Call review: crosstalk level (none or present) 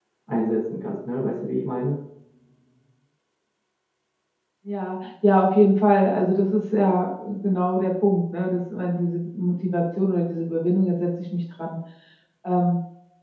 none